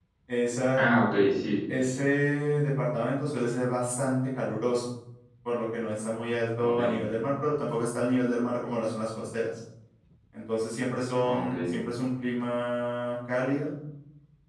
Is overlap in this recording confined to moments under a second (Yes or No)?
Yes